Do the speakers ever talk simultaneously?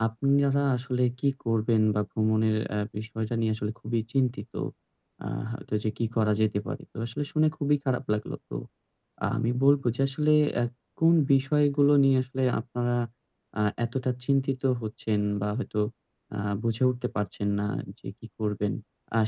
No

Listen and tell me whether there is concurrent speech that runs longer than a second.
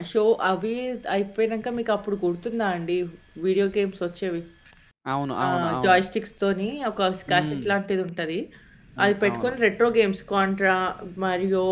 No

